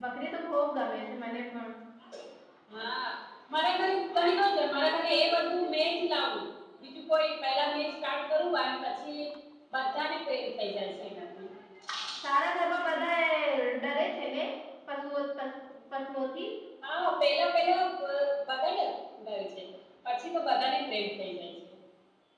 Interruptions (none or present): none